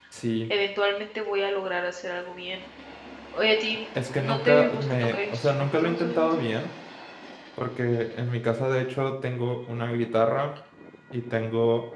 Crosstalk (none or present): present